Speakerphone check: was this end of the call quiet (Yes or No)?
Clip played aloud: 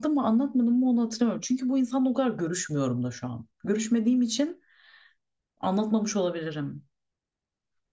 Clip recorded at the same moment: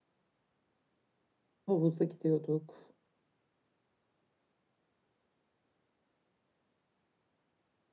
No